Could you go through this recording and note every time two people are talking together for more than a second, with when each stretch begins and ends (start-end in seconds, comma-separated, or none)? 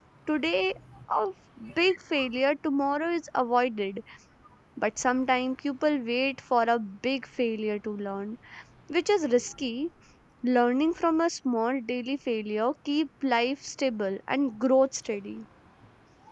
none